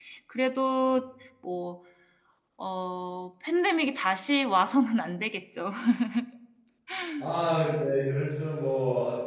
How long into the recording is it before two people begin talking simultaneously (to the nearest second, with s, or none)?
none